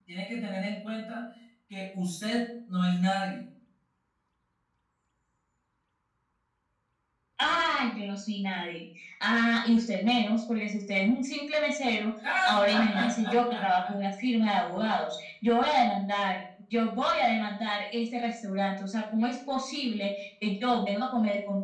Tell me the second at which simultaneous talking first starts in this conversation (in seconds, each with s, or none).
12.2 s